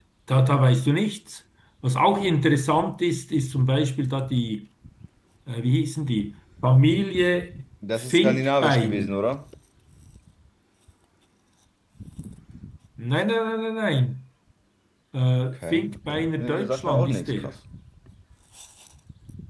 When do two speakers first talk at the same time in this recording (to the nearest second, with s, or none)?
8 s